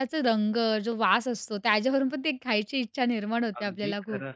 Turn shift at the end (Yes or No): Yes